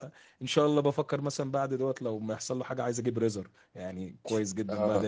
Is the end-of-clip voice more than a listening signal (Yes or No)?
Yes